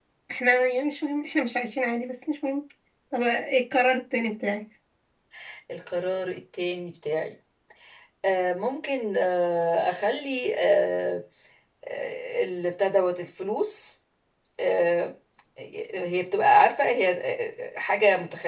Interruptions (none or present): none